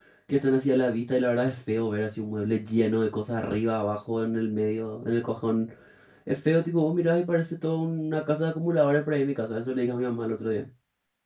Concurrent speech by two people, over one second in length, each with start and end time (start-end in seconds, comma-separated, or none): none